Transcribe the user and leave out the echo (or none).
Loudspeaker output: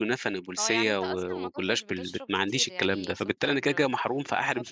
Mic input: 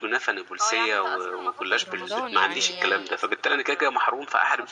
في رمضان يعني